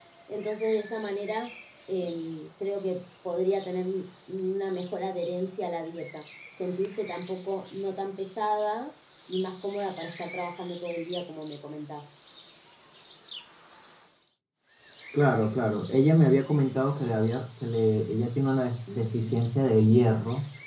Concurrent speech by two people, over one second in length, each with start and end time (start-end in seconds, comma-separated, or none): none